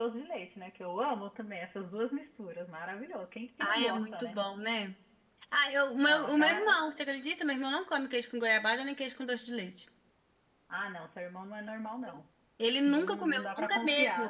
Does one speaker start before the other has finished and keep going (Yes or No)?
Yes